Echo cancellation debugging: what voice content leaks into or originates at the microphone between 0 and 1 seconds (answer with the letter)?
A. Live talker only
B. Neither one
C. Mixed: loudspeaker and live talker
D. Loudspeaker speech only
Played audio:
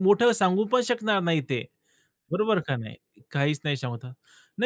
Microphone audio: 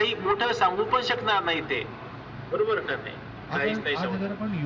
D